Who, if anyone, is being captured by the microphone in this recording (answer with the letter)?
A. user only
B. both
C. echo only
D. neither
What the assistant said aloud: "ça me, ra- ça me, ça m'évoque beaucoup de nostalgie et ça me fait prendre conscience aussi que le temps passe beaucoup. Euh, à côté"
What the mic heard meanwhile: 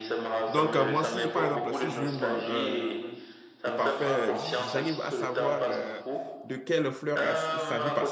B